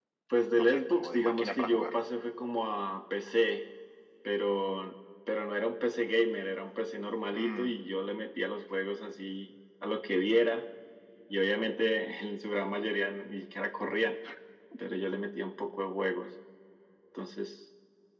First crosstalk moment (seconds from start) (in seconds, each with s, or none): 0.6 s